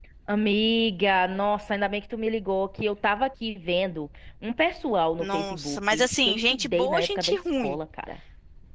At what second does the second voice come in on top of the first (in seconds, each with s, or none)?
5.2 s